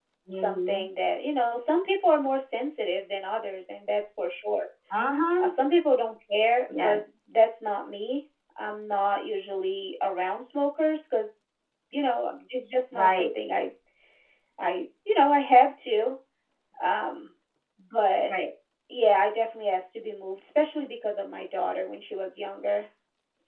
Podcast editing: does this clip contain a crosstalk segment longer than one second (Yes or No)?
No